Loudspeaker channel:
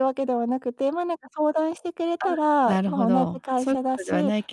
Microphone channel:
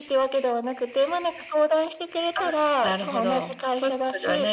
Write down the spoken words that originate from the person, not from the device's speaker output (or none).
none